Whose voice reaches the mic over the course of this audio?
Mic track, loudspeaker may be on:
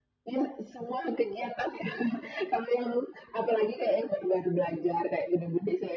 echo only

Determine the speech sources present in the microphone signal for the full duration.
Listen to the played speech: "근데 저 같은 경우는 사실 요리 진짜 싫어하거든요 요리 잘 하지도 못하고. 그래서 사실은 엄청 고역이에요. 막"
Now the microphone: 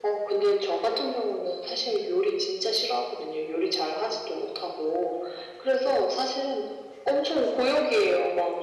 echo only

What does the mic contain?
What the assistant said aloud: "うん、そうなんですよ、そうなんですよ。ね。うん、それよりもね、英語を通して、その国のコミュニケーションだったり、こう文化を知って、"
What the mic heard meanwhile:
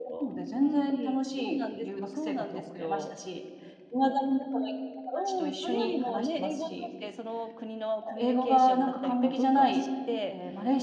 both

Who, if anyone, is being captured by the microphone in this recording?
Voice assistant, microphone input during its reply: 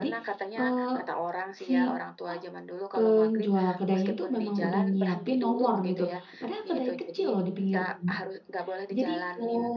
both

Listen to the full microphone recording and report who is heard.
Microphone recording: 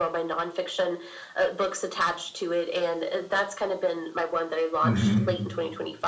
both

